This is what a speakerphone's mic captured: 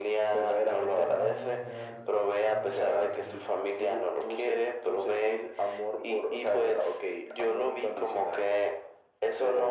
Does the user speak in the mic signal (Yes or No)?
Yes